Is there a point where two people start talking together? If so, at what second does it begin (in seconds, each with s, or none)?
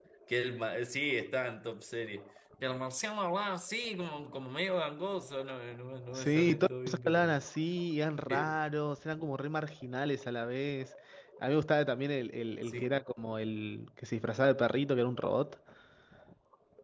6.2 s